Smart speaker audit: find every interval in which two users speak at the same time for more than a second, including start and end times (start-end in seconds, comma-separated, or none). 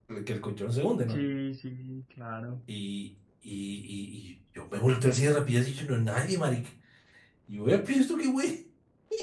none